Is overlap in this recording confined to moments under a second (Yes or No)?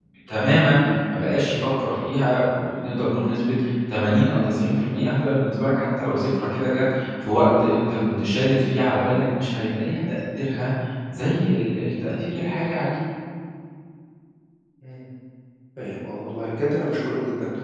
Yes